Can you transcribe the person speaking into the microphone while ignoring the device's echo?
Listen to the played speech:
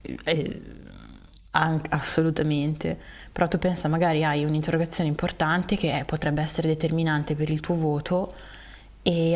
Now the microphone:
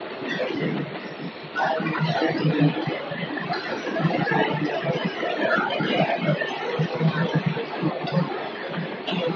none

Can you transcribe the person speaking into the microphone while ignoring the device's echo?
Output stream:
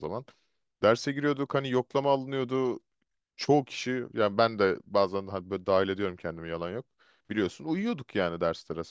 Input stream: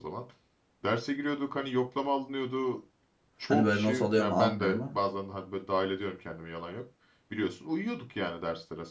Hani böyle not alıyor mu almıyor mu?

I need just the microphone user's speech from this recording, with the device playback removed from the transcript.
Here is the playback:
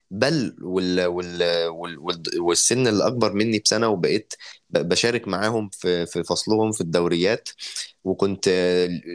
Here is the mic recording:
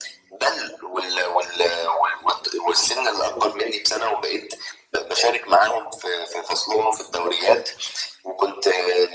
none

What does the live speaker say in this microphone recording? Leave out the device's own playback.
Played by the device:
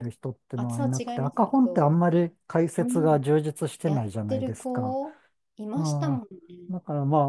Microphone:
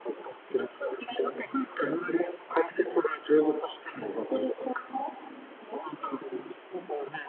none

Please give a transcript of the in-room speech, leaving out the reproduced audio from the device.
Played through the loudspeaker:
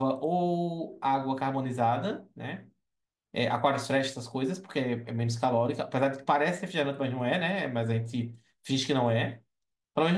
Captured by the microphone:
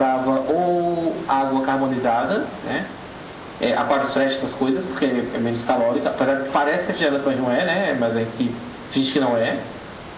none

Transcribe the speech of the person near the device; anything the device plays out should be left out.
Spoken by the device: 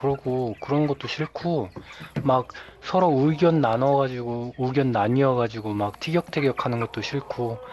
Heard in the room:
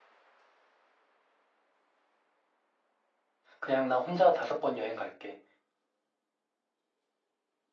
그냥 나 혼자 다섯 번 여행 갈게.

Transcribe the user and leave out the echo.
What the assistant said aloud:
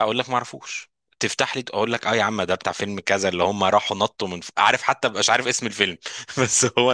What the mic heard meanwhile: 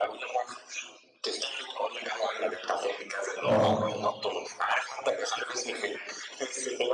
اه

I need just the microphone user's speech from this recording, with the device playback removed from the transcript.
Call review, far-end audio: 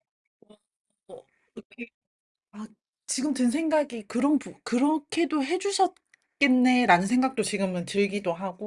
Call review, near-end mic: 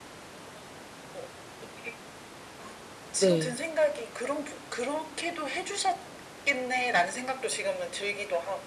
네.

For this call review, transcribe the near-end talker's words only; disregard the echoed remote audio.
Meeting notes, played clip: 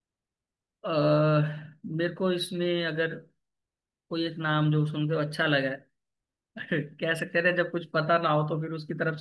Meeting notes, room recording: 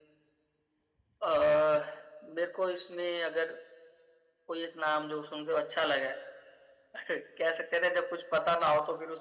none

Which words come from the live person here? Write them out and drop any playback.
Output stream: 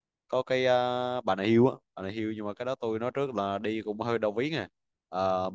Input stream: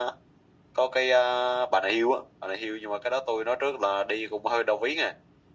none

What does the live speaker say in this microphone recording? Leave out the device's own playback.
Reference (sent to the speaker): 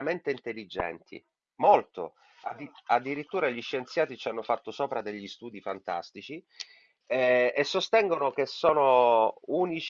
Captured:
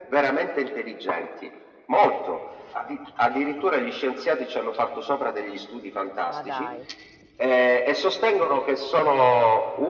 Ma dai.

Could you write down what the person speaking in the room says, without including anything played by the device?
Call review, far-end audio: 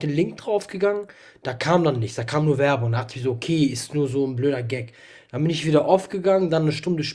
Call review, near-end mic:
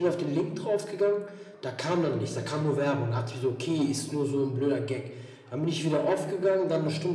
none

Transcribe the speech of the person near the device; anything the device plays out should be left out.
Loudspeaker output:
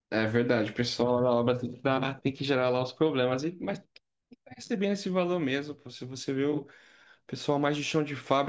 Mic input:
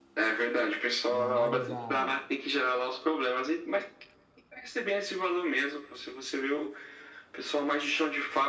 na área da,

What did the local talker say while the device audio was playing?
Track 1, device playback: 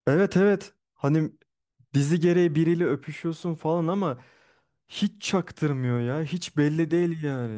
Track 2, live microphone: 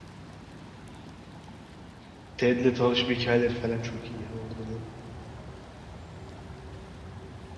Ted'le tanışma hikayeleri falan çok iyi ya orada da.

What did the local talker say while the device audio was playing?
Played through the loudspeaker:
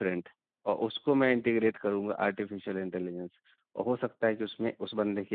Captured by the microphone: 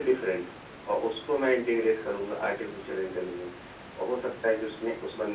none

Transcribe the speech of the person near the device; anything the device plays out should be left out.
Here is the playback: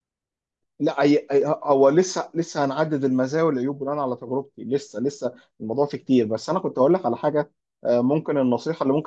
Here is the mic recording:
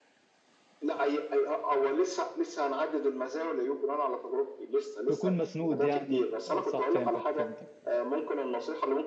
تكون مسنود يعني ب- صح فهمتك فهمتك

